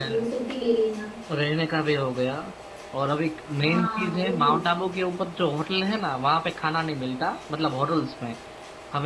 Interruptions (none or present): present